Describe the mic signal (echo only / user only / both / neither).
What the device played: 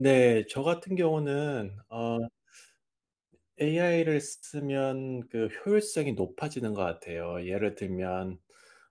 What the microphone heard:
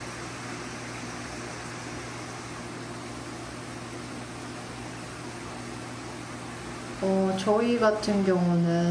user only